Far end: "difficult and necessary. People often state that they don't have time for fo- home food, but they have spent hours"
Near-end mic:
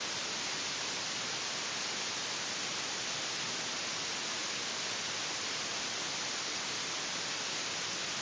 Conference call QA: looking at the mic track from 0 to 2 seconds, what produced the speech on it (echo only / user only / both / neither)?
neither